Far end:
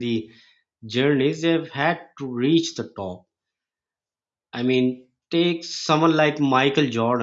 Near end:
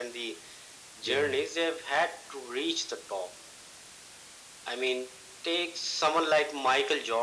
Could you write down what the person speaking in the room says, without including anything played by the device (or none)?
Yeah.